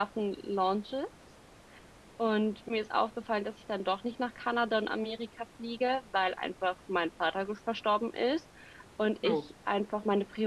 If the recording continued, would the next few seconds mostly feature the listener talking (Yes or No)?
No